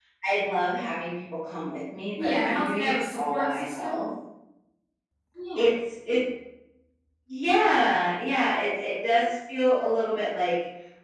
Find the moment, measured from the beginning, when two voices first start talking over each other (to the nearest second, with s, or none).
2 s